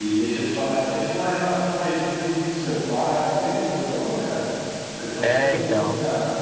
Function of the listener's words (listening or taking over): taking over